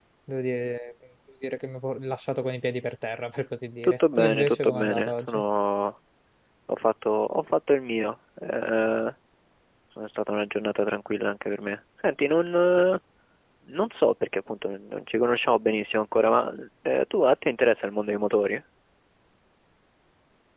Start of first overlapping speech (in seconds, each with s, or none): 3.8 s